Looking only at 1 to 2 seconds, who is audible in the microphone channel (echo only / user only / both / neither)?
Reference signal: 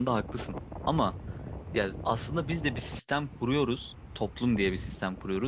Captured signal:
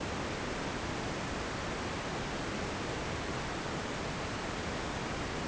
neither